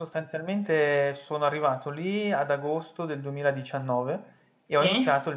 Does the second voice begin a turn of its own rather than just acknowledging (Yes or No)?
No